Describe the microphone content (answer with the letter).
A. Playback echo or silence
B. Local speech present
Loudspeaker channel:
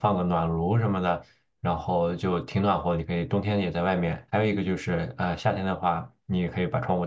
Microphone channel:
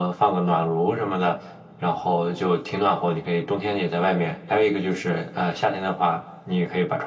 A